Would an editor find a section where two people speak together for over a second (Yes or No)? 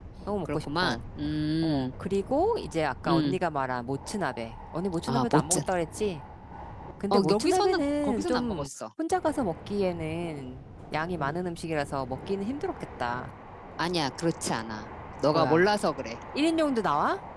Yes